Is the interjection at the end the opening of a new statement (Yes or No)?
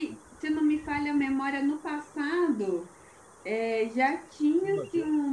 No